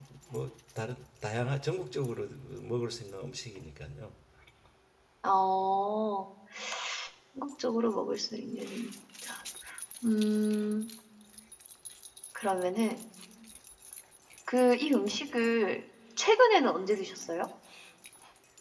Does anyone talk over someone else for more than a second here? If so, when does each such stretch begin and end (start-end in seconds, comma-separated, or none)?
none